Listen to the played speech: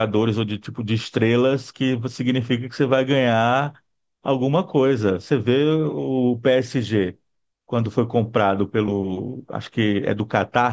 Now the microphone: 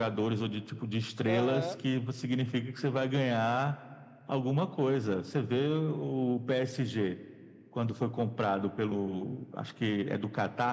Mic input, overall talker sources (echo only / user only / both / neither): both